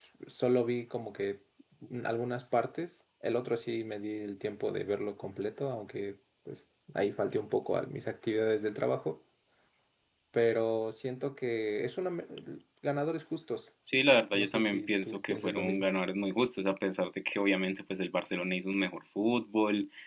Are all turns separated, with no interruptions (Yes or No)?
No